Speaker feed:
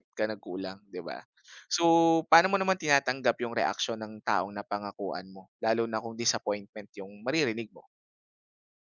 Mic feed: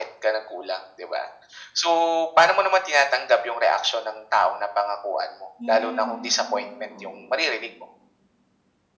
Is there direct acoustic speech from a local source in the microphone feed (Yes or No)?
Yes